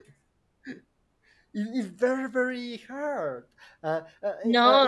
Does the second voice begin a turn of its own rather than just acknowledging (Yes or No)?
No